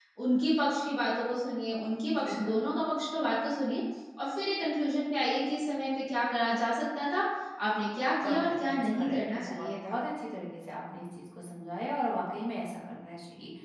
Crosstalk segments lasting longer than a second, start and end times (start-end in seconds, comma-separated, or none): 8.3-10.0